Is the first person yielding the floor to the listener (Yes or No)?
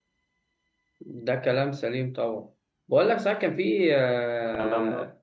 No